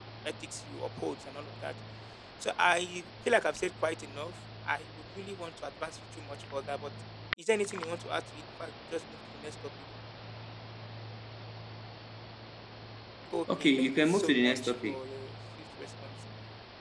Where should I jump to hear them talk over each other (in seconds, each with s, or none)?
13.6 s